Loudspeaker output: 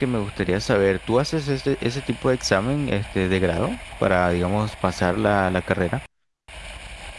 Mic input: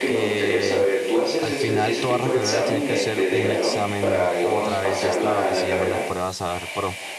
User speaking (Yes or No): Yes